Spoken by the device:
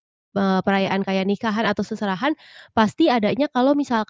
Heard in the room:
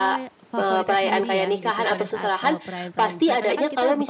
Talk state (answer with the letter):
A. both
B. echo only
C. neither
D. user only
A